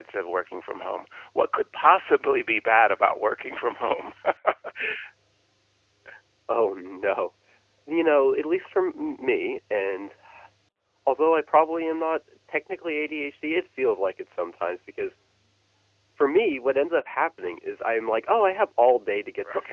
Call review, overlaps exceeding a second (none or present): none